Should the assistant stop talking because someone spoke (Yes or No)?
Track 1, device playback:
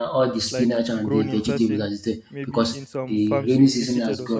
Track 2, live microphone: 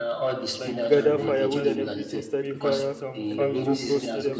Yes